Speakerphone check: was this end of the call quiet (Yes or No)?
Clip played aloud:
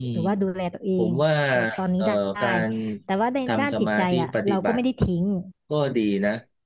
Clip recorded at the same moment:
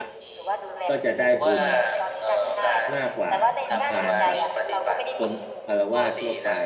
No